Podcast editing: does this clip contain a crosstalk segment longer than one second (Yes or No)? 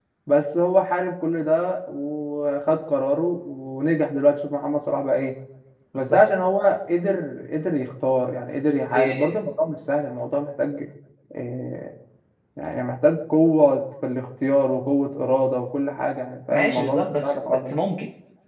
Yes